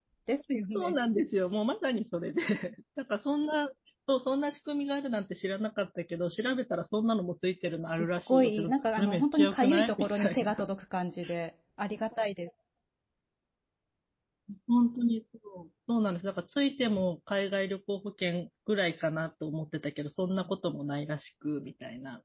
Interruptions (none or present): present